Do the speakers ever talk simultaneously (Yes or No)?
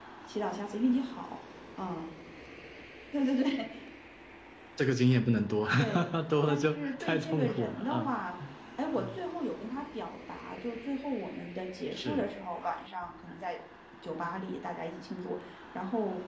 Yes